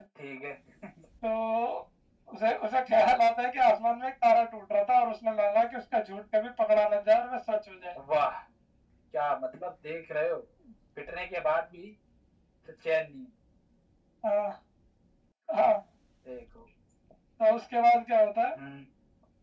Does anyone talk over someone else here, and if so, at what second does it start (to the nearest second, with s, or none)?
none